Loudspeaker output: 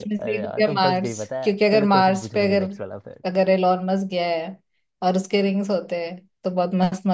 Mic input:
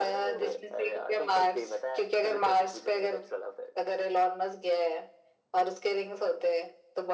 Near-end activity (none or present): none